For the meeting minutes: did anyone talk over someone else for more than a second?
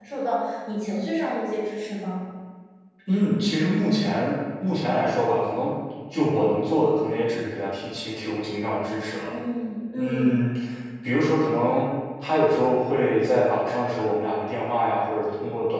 No

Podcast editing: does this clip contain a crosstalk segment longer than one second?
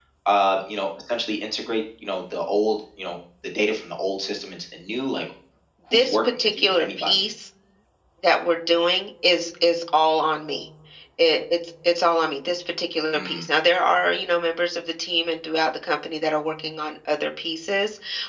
Yes, from 5.9 s

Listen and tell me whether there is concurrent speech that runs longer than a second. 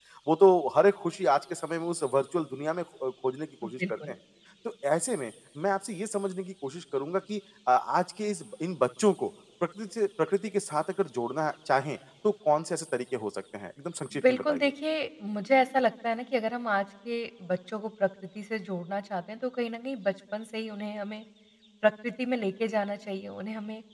No

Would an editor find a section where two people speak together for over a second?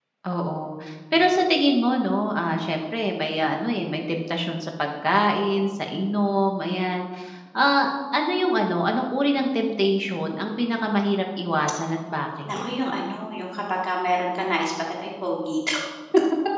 No

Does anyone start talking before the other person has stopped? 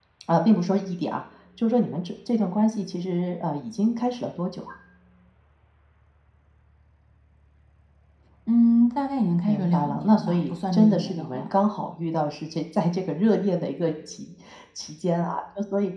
Yes, from 9.5 s

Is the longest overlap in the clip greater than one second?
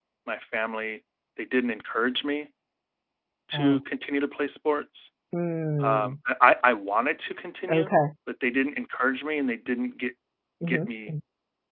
No

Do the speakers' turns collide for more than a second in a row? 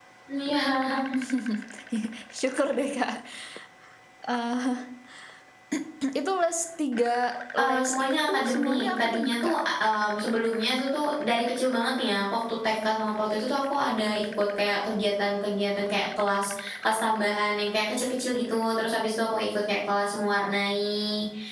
Yes, from 7.6 s

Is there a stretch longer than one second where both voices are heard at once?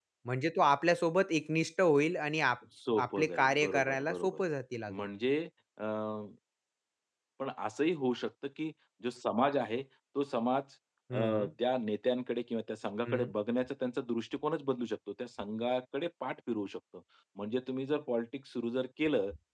Yes, from 3.1 s

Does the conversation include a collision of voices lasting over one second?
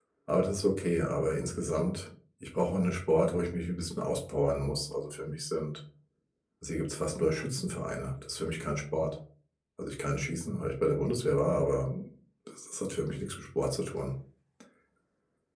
No

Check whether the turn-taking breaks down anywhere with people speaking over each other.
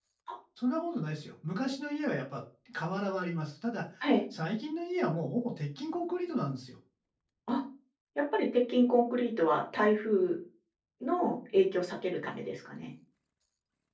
No

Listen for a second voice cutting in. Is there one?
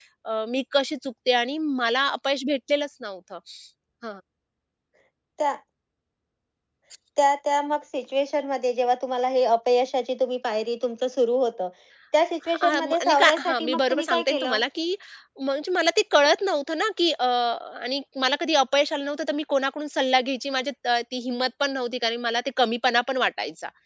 Yes, from 12.5 s

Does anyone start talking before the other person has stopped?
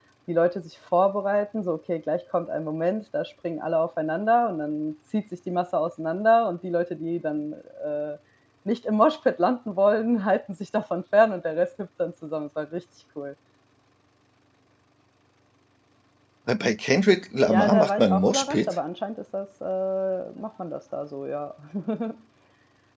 Yes, from 17.5 s

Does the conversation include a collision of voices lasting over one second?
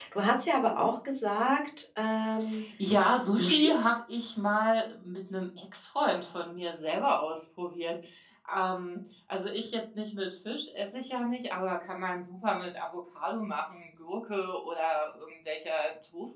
No

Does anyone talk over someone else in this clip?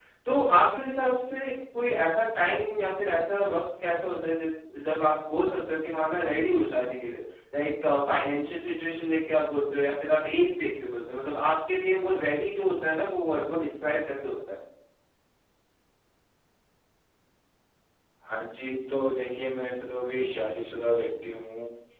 No

